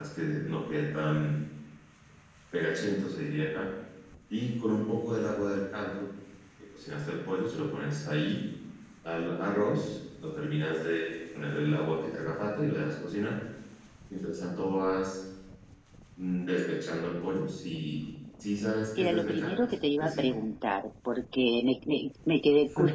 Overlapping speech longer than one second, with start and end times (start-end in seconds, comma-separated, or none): 19.0-20.2